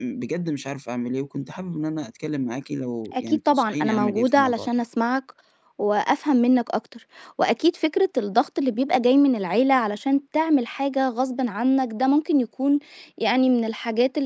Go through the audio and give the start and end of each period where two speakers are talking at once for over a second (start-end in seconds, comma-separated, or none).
3.1-4.7